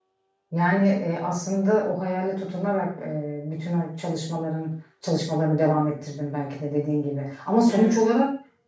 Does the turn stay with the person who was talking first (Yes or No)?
Yes